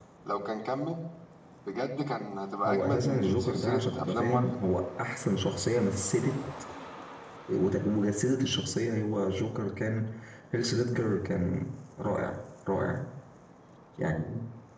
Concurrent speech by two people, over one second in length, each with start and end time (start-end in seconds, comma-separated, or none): 2.7-4.5